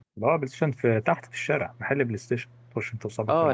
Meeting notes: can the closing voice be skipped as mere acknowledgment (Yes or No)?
No